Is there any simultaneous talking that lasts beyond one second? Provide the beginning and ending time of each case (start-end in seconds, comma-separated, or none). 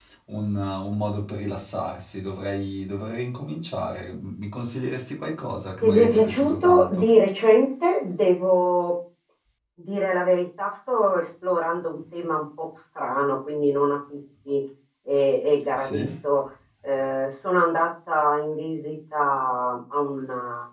5.8-7.0